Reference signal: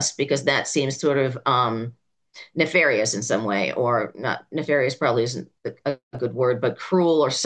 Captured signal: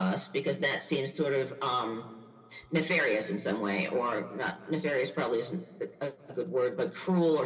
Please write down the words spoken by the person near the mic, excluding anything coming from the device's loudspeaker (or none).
none